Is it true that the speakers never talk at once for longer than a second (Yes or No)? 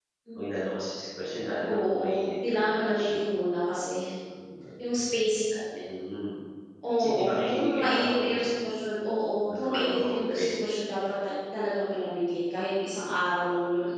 No